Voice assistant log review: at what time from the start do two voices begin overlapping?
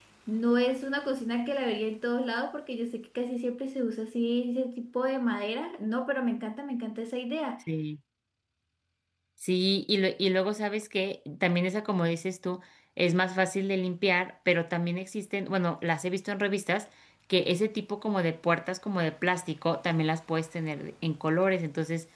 none

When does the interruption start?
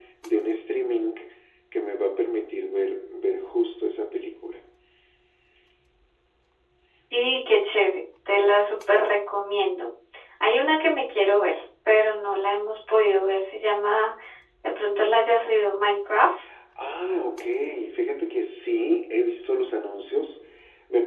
none

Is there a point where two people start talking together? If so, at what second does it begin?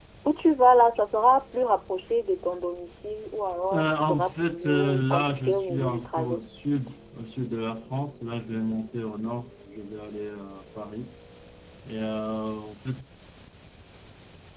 3.7 s

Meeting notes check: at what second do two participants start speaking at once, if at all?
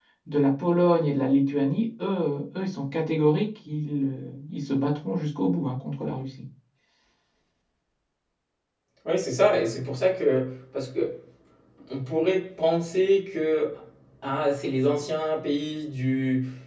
none

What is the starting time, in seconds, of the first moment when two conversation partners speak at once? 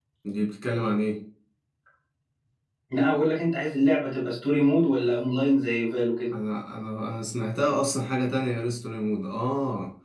none

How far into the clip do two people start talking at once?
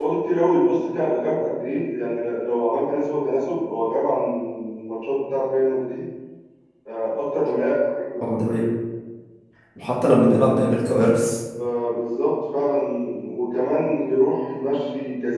none

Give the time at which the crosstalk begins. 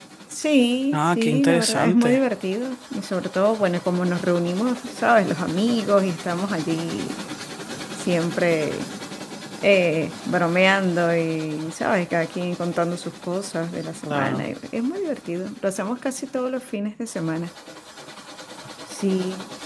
0.9 s

